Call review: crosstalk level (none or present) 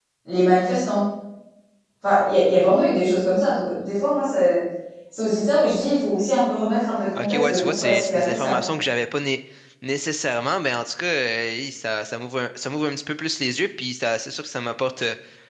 present